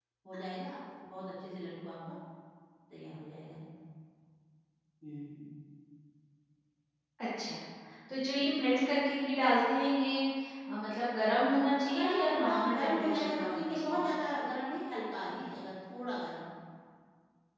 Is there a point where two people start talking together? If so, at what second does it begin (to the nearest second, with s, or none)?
12 s